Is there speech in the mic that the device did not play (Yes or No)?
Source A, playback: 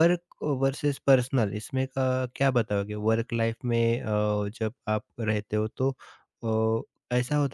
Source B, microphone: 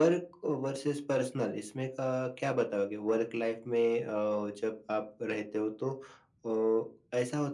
No